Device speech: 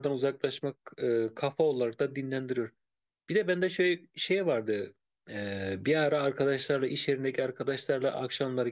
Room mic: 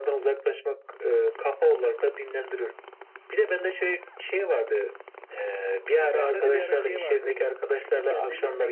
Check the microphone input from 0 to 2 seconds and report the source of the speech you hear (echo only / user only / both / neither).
echo only